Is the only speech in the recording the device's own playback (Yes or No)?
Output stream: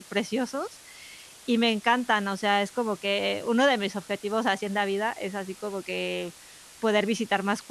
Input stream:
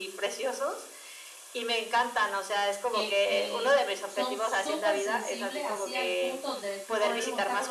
No